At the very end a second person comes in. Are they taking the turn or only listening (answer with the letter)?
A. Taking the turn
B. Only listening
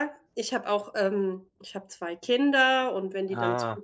B